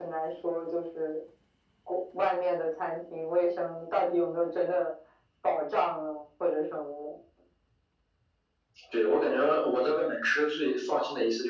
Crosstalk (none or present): none